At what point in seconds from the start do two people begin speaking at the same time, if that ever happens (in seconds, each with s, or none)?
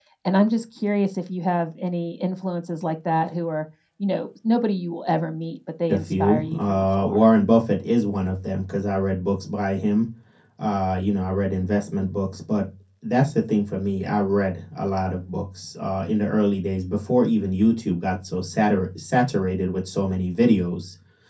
5.9 s